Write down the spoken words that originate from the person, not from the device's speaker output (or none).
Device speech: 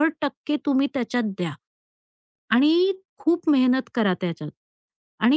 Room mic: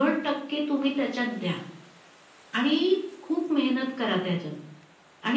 none